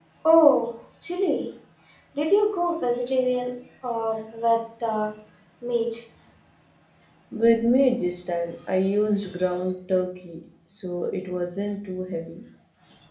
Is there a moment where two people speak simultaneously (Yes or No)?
No